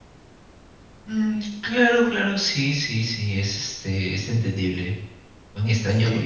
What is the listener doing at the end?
taking over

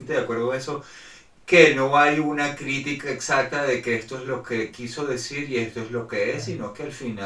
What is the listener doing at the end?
listening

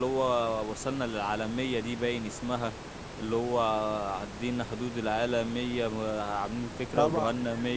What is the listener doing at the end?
taking over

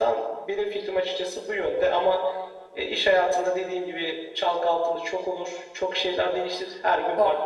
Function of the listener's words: taking over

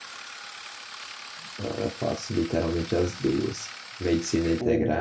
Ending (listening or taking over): listening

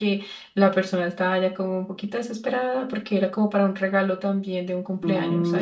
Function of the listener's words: taking over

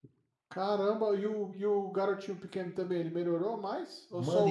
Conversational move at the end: taking over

